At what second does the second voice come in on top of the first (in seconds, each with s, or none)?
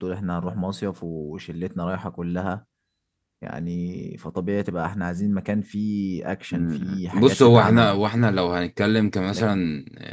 6.5 s